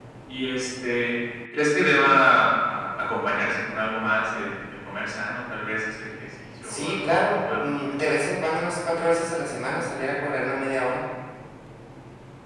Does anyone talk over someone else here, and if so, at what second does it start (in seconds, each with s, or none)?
6.6 s